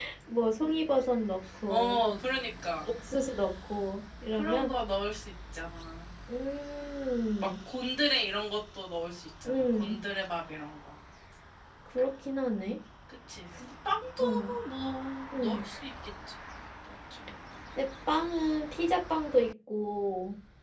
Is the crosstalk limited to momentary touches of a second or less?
Yes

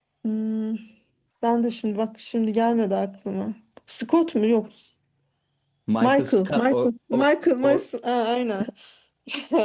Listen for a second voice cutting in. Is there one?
Yes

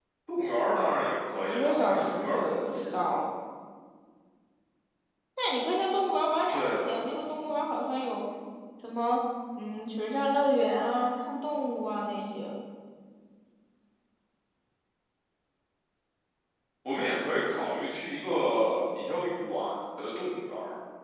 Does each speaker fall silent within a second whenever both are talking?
No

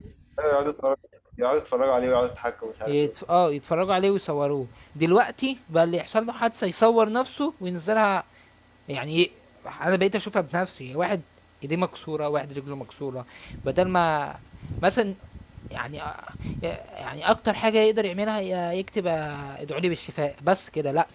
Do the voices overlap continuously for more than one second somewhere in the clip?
No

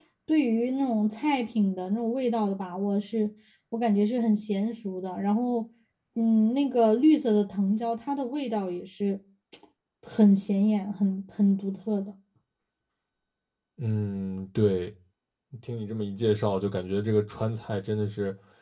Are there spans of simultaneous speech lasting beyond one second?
No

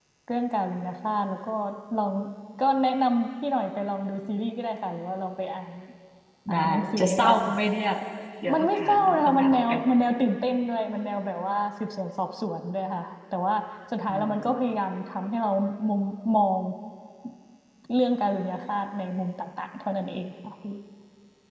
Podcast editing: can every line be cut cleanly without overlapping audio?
No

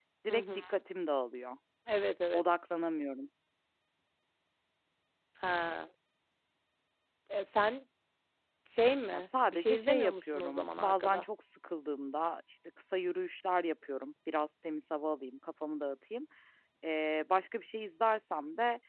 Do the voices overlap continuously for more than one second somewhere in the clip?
Yes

